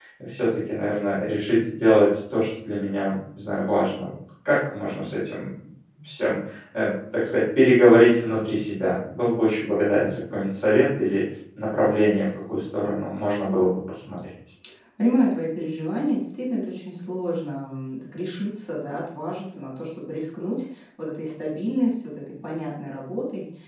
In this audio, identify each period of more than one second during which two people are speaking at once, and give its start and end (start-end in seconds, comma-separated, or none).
none